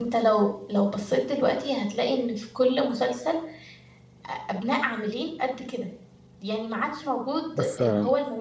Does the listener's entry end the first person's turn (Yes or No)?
No